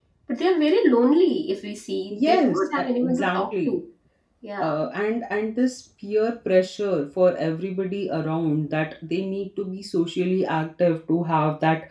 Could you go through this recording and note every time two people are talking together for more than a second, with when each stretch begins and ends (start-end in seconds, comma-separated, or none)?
2.1-3.8